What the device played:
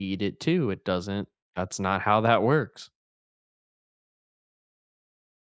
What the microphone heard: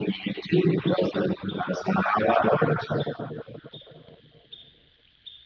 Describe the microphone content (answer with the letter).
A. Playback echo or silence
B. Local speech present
A